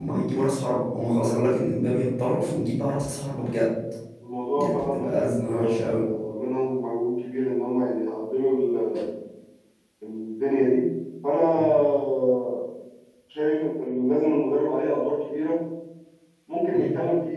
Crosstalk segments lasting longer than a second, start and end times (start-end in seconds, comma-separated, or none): 4.6-6.0